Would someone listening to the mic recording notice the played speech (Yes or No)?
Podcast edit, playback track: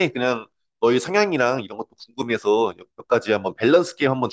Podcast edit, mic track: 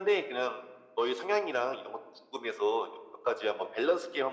Yes